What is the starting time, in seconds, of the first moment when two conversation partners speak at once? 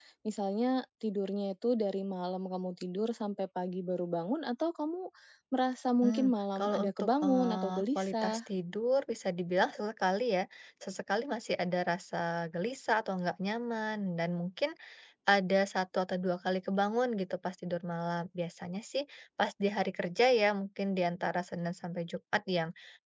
6.0 s

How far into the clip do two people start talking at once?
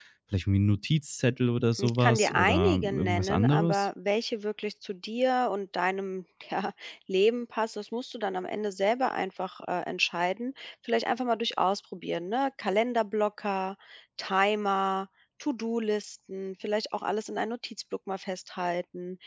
1.8 s

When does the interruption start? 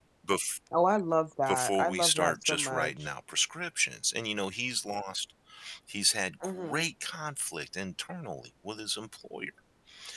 1.5 s

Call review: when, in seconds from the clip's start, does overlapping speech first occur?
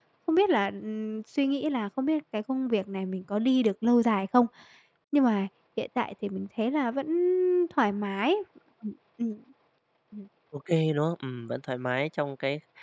none

